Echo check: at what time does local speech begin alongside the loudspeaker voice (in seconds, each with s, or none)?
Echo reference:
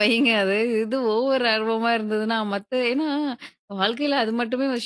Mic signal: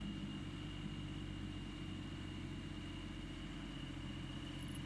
none